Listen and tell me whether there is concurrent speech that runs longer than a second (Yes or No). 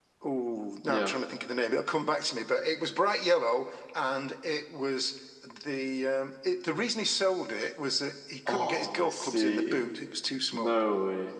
Yes